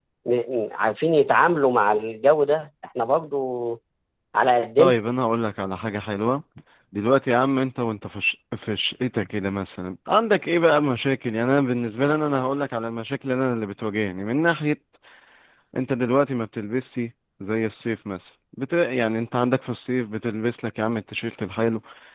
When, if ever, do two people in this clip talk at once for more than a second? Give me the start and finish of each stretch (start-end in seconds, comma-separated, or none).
none